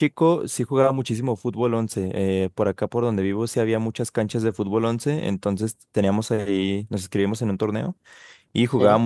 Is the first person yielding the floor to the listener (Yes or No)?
No